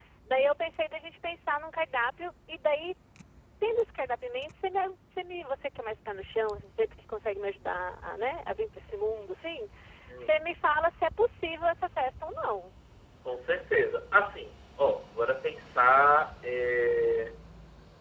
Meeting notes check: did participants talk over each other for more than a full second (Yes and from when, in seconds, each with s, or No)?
No